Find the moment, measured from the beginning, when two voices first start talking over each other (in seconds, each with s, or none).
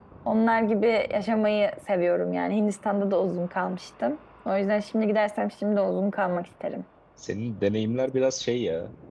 none